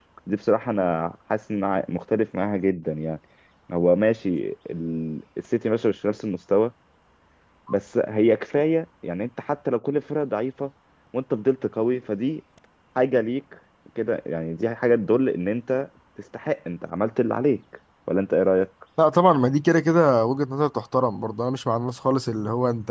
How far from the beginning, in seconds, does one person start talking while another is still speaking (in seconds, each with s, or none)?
none